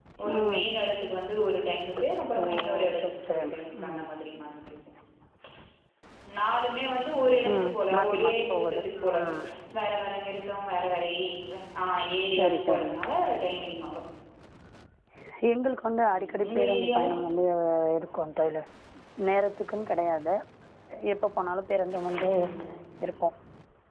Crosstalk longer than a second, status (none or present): present